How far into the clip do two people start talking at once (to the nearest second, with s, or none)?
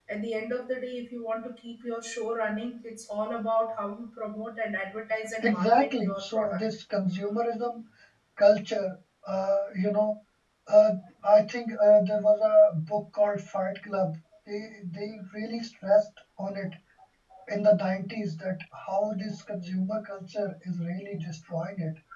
5 s